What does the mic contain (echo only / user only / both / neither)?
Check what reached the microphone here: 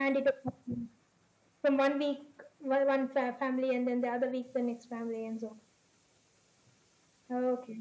echo only